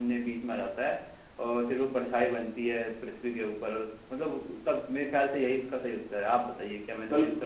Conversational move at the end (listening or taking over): taking over